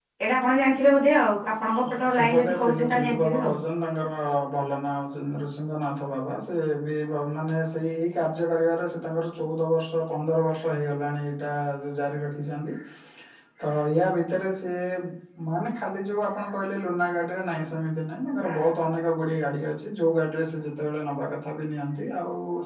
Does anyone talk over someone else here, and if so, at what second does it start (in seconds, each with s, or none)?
1.8 s